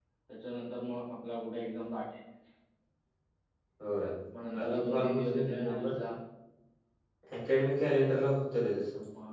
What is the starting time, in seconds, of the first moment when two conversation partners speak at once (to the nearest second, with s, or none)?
5 s